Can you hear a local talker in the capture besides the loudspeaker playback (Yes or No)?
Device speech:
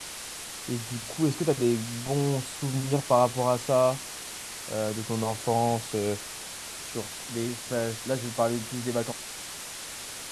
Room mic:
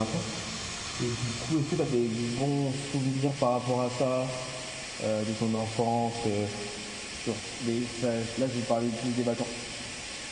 No